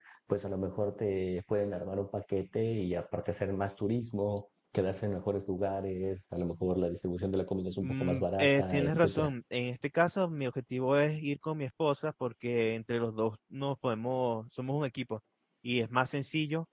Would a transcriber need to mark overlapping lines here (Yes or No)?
Yes